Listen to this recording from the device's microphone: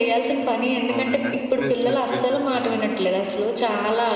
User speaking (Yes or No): Yes